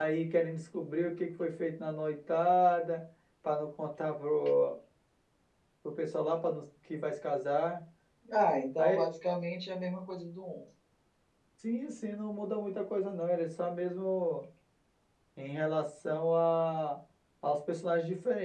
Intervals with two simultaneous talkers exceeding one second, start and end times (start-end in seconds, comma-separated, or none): none